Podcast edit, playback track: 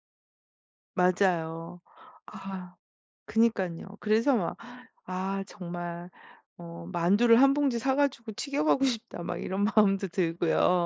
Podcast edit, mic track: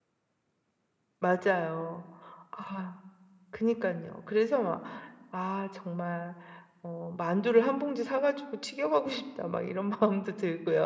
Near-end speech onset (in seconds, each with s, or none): none